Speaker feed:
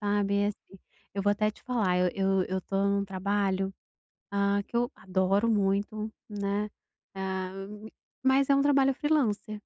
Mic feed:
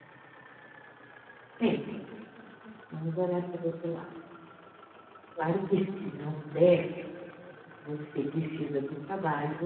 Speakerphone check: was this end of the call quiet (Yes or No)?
No